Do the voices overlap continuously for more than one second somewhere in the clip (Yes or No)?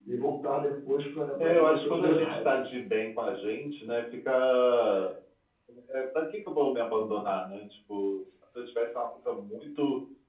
Yes